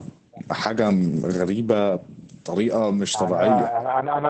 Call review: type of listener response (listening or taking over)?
taking over